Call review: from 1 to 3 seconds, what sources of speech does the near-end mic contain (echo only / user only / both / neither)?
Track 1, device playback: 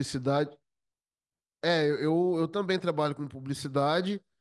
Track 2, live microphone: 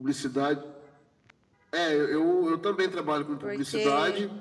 echo only